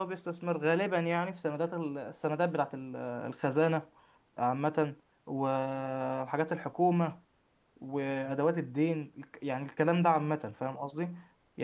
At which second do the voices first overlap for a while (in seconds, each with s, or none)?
none